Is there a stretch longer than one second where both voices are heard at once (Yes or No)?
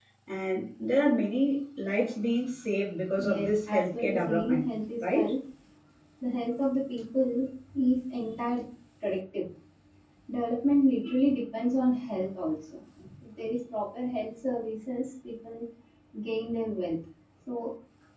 Yes